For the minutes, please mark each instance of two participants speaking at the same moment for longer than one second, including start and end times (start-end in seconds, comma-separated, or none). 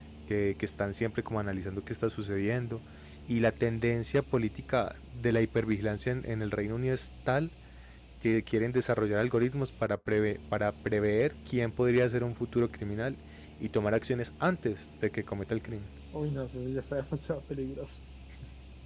none